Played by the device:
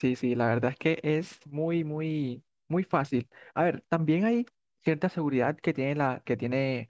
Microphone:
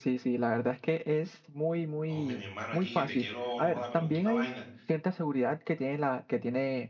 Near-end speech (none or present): present